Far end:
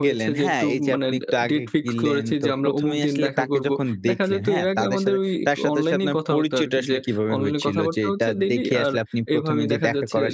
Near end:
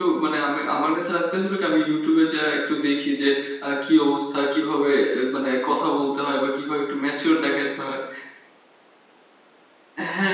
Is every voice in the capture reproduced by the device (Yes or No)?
No